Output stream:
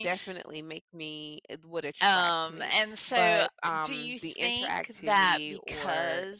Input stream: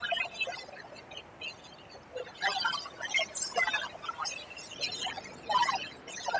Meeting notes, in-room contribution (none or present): none